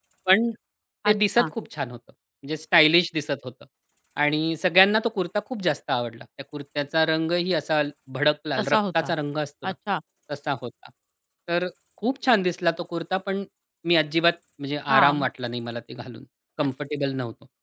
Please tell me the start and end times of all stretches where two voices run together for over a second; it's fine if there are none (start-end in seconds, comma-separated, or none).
none